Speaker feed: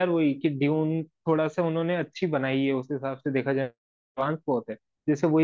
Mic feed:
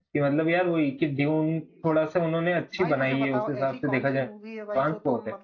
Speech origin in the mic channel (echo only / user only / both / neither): both